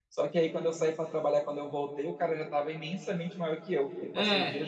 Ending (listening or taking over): taking over